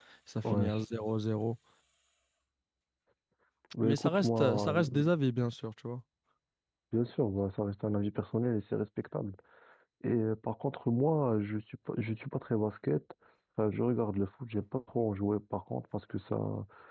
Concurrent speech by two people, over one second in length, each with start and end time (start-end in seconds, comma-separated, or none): 3.8-5.1